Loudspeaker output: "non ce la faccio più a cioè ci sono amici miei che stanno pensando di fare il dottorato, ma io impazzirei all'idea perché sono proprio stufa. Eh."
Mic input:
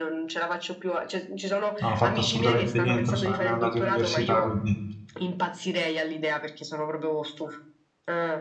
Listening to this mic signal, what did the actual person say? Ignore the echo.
non ho fatto assolutamente niente, non sono nemmeno andato in università, quindi

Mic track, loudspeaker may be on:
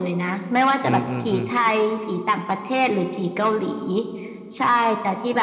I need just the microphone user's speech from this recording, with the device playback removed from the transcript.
อืมอืมอืม

